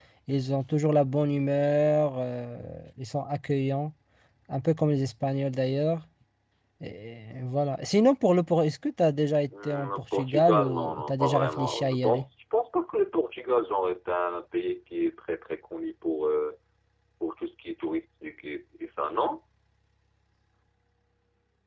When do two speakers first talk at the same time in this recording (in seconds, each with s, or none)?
9.5 s